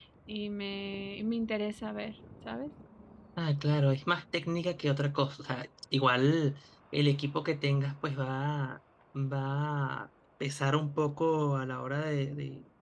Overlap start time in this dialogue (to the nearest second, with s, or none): none